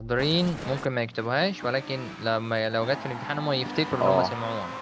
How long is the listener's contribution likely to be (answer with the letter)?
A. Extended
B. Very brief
A